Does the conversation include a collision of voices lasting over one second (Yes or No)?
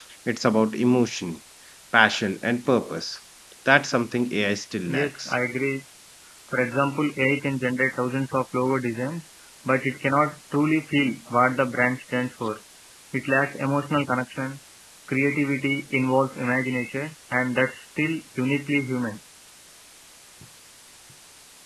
No